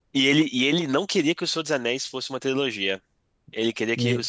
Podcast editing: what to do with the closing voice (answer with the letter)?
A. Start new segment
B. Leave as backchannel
B